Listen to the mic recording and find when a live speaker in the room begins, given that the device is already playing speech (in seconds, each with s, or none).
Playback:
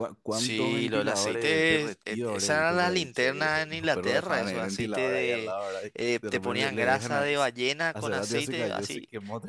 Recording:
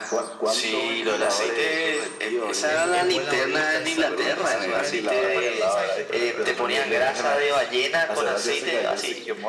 2.6 s